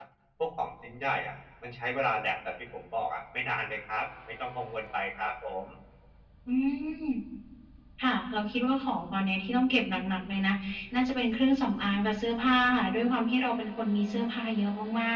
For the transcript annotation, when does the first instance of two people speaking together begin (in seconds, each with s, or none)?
none